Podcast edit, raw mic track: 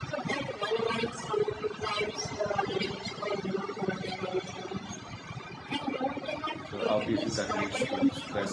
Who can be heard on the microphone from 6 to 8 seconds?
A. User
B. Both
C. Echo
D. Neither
B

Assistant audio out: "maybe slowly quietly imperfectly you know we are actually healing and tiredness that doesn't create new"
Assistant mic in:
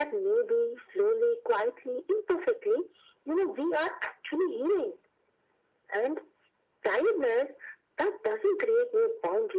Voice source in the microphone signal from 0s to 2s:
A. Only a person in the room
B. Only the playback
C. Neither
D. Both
B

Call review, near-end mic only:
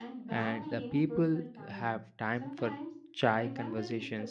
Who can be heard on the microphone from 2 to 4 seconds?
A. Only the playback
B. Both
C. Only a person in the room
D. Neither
B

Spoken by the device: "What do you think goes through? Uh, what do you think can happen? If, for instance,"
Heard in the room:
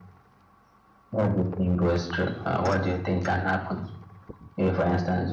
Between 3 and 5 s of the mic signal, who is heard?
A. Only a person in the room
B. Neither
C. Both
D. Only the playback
D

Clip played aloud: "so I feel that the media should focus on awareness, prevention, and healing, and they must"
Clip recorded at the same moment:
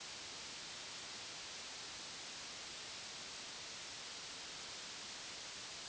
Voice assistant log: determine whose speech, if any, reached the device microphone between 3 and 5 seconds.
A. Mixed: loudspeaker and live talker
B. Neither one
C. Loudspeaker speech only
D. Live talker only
B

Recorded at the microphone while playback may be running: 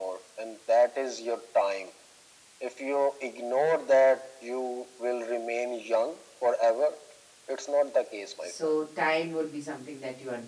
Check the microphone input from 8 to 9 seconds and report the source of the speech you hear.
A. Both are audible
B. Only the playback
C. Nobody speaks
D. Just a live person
A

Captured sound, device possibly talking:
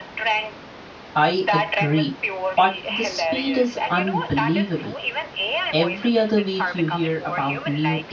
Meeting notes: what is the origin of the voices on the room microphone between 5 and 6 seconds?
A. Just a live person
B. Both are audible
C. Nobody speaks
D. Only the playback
B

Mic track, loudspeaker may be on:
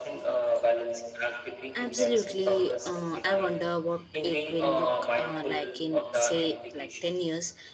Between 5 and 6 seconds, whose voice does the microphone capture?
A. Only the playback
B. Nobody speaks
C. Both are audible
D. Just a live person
C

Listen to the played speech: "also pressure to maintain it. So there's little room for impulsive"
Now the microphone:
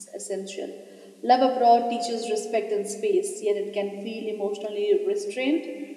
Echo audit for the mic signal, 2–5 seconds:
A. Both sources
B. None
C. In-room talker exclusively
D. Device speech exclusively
C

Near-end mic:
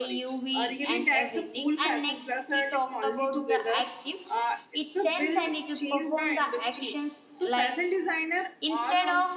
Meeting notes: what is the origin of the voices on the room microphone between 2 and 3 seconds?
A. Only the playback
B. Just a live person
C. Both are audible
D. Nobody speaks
C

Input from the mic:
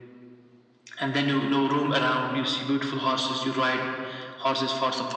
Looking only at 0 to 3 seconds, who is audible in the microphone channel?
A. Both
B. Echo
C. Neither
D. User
B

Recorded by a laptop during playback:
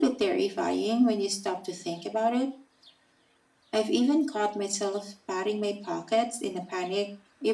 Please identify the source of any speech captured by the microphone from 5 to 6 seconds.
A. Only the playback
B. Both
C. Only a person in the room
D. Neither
A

